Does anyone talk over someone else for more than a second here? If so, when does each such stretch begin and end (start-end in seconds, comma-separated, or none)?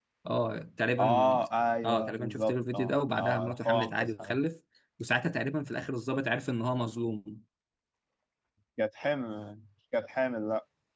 1.8-4.4